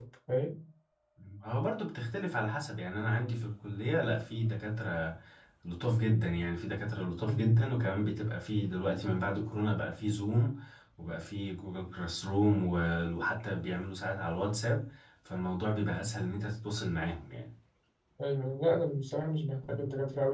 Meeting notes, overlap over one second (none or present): none